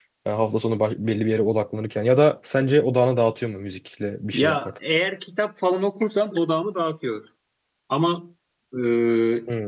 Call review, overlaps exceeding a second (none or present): none